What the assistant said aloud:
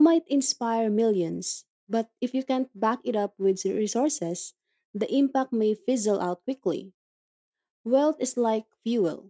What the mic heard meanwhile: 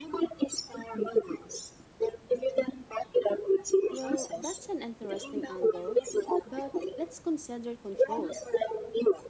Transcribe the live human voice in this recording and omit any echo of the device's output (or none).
Well, that's an interesting angle. But let's consider control.